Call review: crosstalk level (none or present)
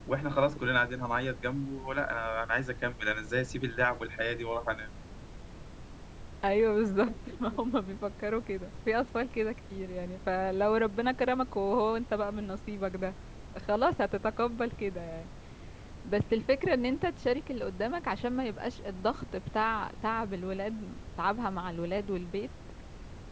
none